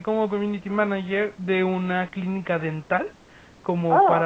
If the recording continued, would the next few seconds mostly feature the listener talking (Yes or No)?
No